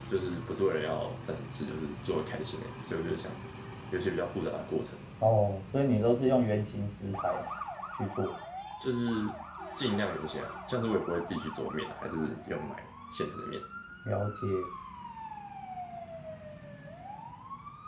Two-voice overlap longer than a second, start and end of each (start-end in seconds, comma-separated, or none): none